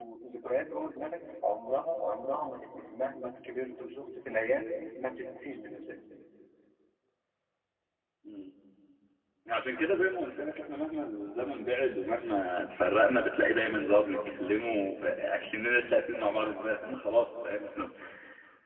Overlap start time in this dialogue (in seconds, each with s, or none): none